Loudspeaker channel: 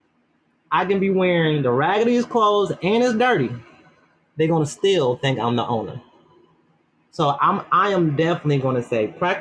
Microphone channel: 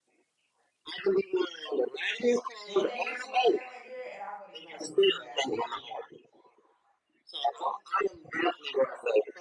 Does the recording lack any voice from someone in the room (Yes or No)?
No